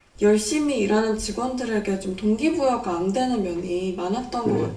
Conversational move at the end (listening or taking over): taking over